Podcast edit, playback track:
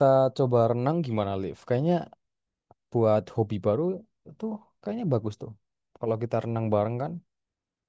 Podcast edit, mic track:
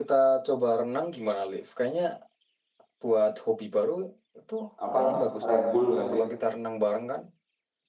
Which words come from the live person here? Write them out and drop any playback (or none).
Apa Red Bull nggak sih?